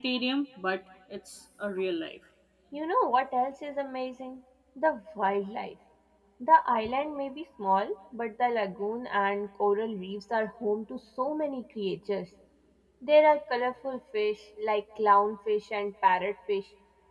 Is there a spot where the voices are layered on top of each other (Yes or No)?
No